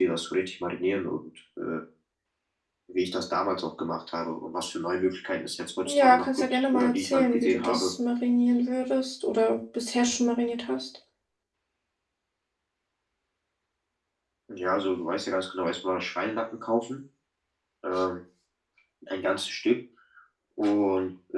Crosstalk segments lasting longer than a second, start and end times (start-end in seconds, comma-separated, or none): 5.8-7.9